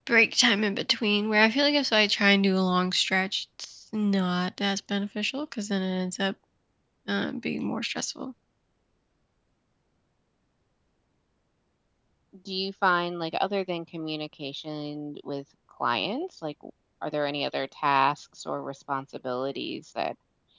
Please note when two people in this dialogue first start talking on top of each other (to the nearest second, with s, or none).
none